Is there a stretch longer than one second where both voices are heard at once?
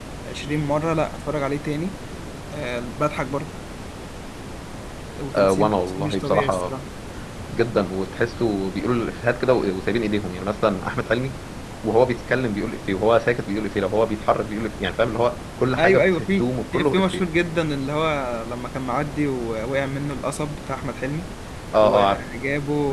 Yes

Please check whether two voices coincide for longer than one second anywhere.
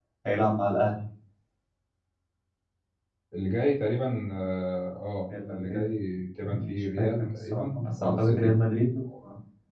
Yes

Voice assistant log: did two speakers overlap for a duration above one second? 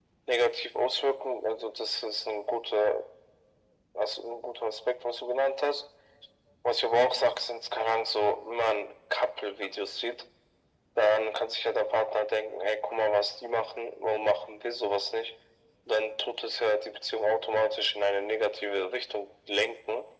No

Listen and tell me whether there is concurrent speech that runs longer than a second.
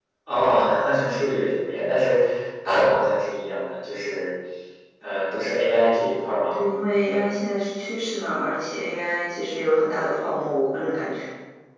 No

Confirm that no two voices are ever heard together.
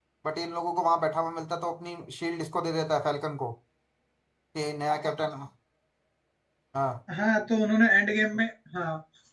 Yes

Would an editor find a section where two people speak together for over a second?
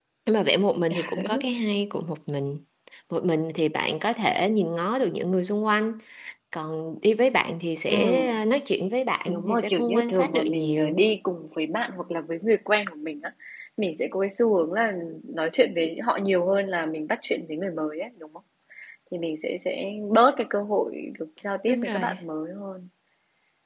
Yes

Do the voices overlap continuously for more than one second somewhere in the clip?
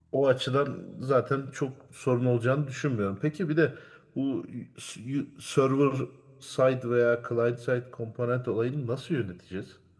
No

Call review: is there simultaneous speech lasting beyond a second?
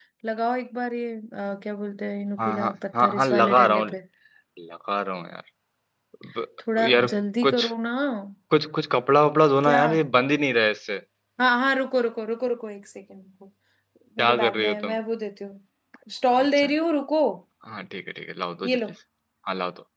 Yes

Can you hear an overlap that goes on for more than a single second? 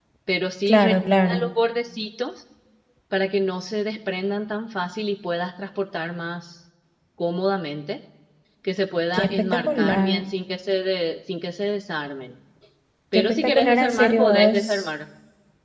Yes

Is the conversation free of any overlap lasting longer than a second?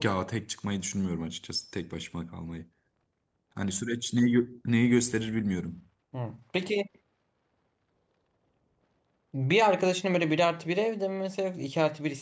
Yes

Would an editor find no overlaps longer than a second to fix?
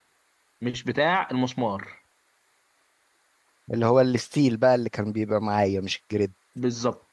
Yes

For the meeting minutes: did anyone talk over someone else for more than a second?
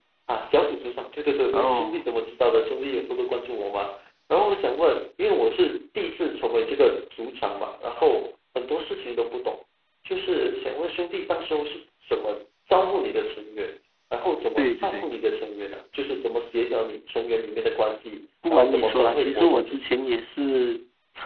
Yes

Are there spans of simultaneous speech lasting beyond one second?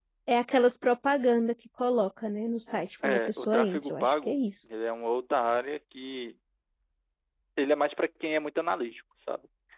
Yes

